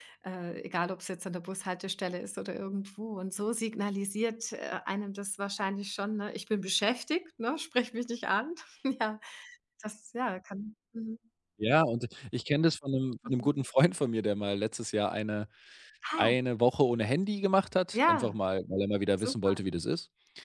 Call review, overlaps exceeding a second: none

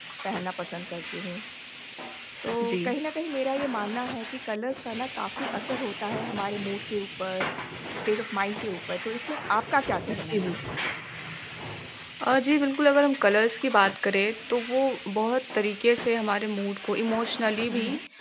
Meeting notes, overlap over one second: none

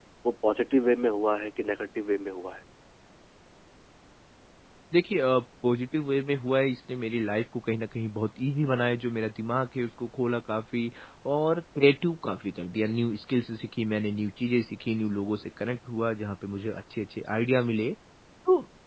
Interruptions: none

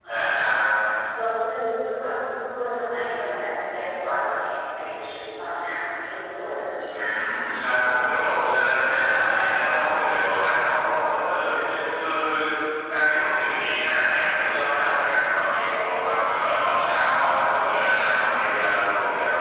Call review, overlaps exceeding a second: none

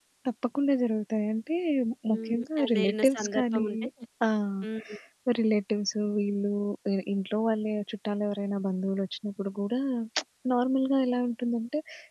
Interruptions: present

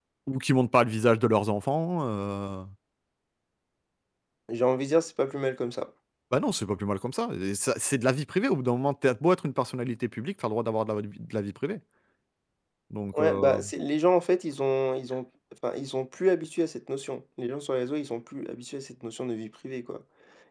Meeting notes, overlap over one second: none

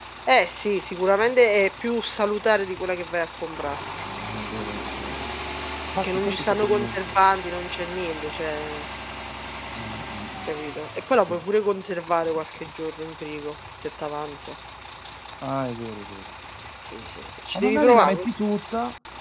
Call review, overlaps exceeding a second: present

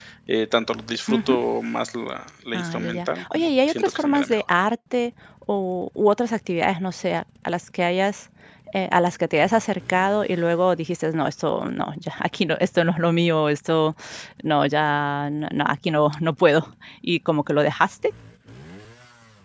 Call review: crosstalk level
present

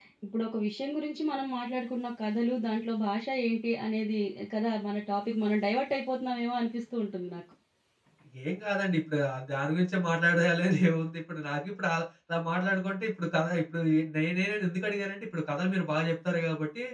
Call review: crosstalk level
none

